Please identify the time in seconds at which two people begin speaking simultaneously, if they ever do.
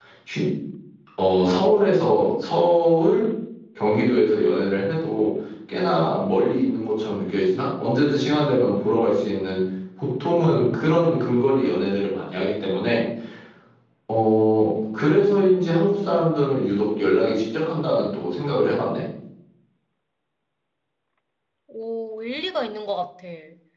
none

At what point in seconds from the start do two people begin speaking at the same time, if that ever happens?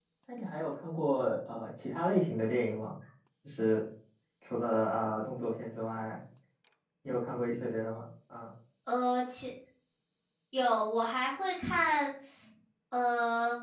none

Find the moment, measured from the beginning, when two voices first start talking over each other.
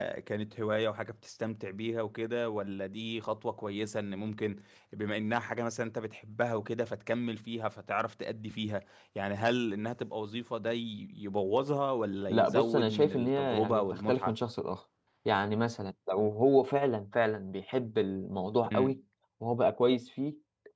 12.3 s

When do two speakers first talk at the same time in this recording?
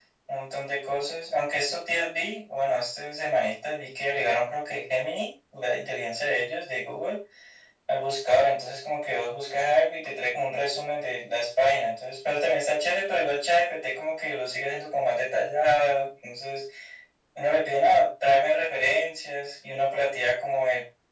none

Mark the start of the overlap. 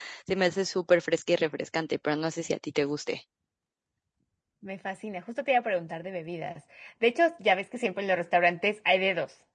none

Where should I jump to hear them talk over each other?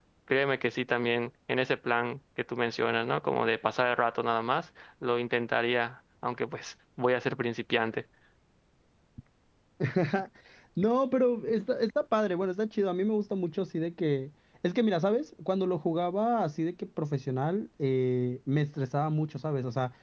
none

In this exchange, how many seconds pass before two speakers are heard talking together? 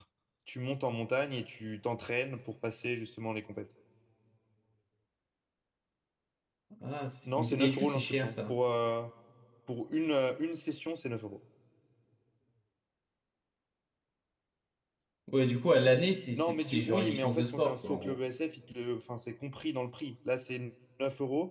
7.2 s

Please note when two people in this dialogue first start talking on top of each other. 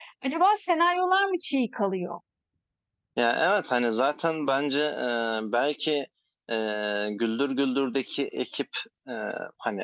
none

